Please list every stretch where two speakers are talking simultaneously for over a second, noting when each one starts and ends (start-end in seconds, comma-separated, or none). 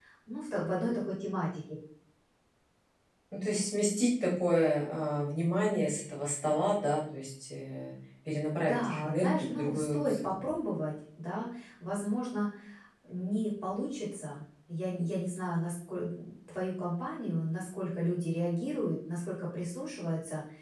8.7-10.3